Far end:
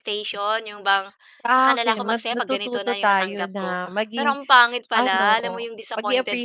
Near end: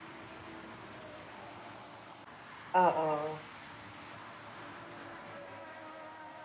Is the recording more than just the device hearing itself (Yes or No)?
Yes